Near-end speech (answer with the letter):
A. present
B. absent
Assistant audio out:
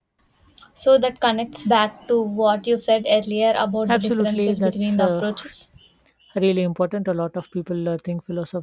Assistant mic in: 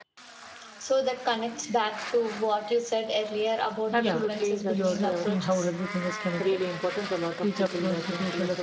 A